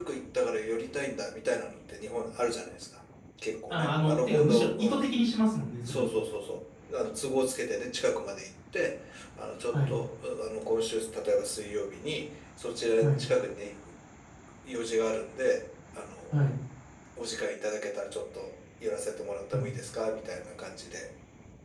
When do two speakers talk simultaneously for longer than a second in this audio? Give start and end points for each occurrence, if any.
3.7-5.0

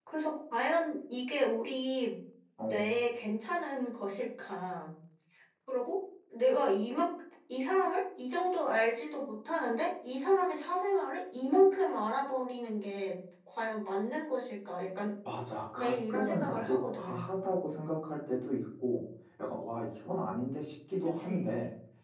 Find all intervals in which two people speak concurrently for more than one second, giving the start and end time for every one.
15.8-17.4

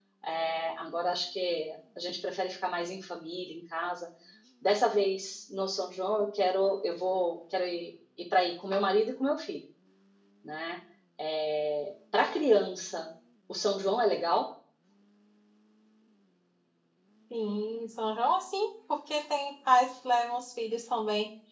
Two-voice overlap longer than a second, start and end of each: none

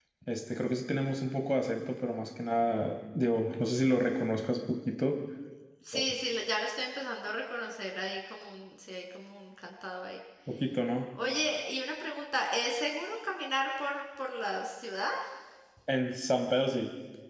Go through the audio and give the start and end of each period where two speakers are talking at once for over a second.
none

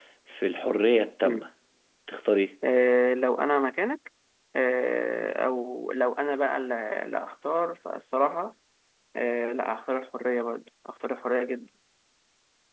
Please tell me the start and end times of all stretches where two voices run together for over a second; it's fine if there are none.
none

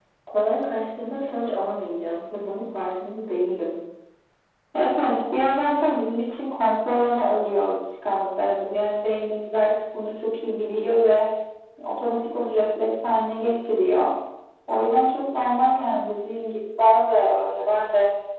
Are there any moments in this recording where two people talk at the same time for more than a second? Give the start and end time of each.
none

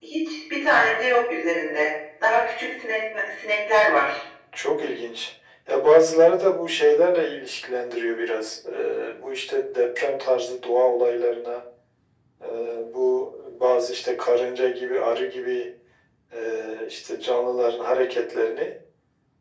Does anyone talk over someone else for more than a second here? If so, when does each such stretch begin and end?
none

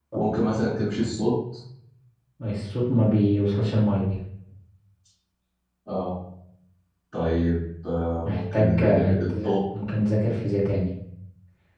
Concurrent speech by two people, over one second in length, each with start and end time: 8.2-9.5

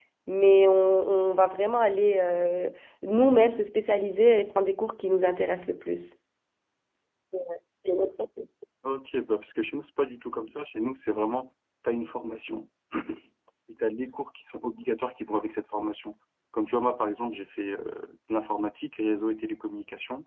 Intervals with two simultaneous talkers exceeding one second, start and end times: none

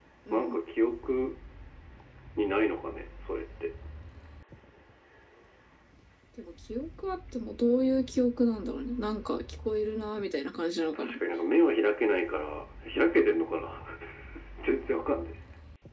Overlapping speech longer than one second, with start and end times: none

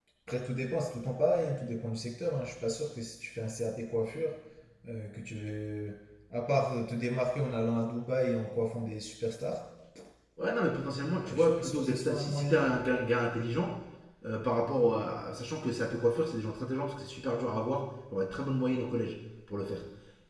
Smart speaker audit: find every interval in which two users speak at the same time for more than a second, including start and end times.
11.2-12.7

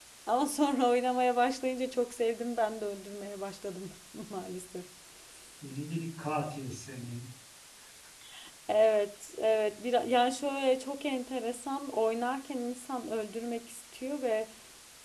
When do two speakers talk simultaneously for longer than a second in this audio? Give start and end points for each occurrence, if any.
none

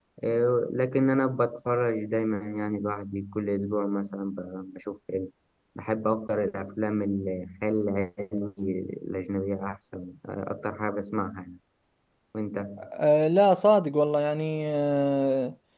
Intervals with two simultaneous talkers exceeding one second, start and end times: none

